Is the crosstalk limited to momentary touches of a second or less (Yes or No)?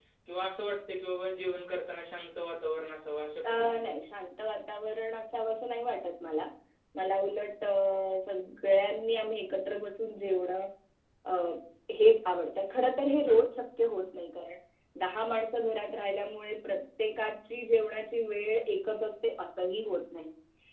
Yes